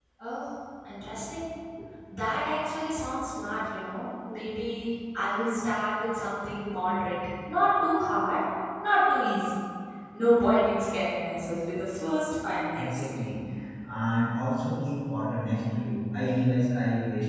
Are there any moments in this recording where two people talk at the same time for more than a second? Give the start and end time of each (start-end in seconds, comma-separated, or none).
none